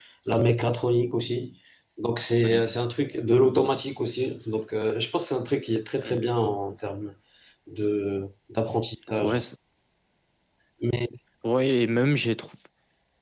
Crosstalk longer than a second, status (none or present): none